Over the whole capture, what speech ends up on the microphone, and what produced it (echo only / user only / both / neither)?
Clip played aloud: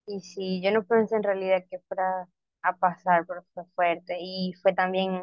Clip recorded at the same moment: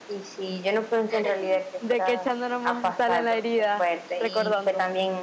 both